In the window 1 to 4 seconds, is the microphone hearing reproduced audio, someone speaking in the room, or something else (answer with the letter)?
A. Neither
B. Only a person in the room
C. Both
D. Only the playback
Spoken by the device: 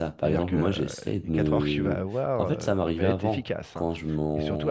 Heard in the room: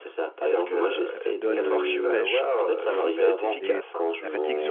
C